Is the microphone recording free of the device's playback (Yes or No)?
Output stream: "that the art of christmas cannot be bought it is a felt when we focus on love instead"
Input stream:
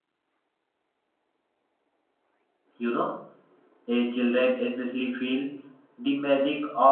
Yes